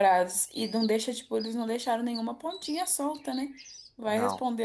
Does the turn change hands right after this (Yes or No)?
No